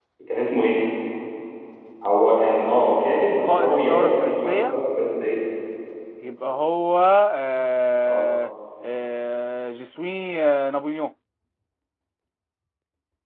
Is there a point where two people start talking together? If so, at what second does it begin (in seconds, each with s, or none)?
3.4 s